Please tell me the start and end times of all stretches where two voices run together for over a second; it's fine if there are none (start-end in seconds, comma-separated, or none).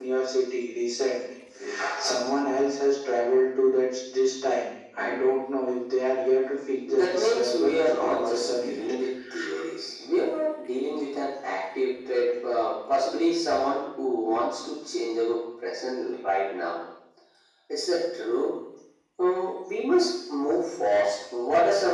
6.9-8.8